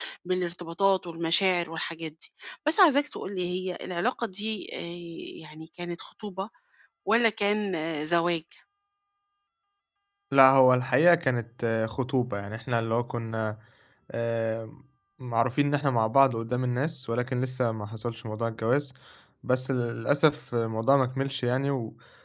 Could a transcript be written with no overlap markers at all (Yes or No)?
Yes